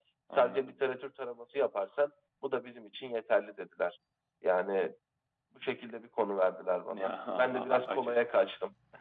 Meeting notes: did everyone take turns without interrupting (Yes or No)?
No